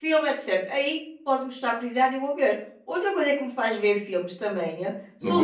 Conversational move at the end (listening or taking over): taking over